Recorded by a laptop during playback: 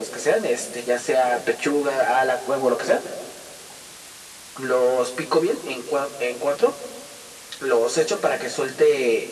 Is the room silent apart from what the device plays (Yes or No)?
Yes